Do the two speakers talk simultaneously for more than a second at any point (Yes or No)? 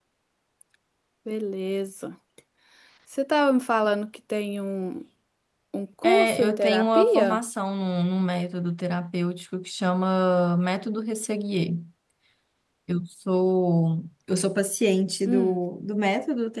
Yes